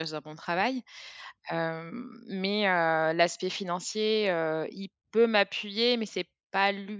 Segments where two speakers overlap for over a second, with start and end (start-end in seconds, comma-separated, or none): none